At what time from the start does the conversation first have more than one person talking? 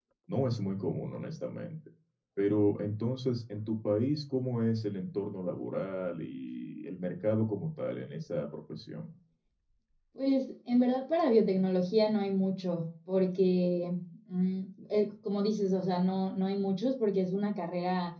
none

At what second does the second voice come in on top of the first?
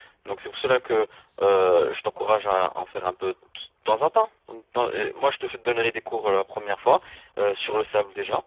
none

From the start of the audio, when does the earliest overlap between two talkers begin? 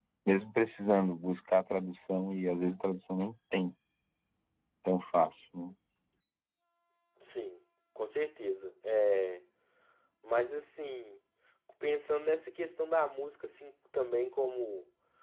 none

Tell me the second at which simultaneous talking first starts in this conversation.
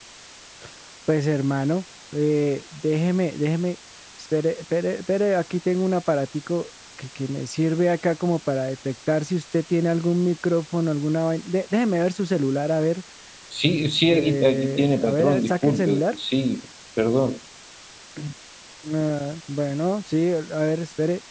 14.1 s

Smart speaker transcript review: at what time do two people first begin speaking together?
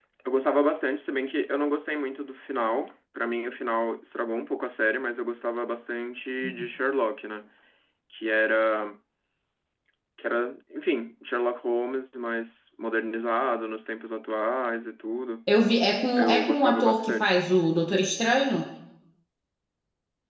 16.2 s

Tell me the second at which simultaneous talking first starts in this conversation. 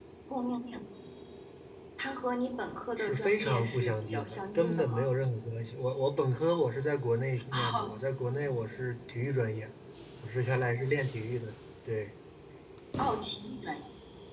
3.0 s

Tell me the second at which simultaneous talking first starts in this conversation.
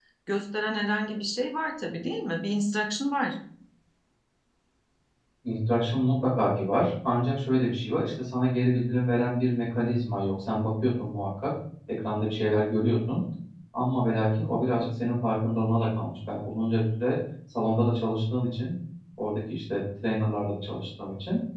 none

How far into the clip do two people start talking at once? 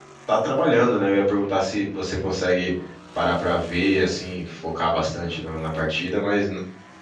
none

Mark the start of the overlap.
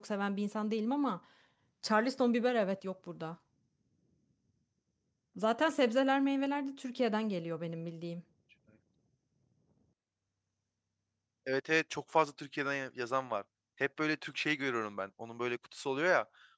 none

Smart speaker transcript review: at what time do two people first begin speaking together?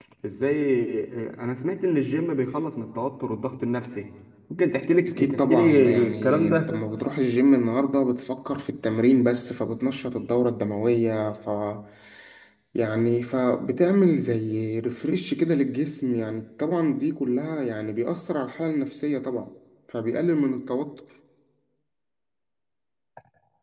5.1 s

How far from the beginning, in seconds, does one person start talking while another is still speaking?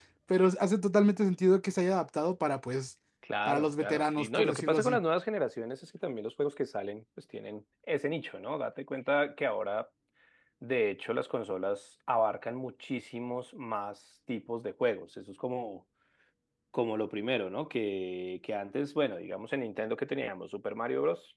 3.5 s

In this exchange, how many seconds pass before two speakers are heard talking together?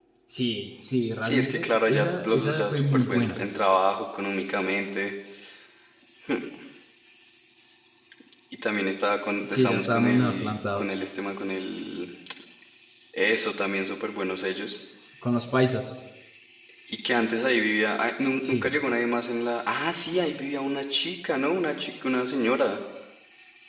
1.2 s

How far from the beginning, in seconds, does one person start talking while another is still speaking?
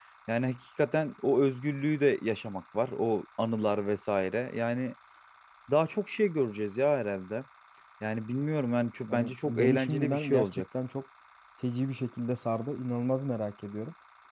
9.1 s

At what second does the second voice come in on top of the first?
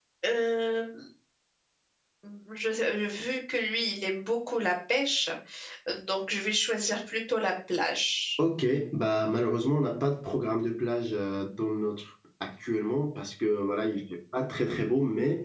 none

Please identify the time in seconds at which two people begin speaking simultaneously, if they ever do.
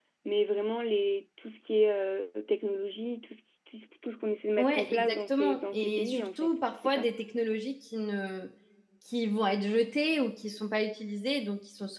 4.6 s

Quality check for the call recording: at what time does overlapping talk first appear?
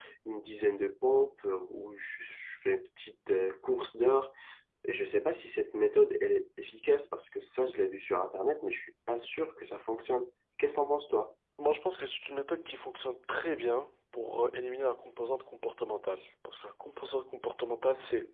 none

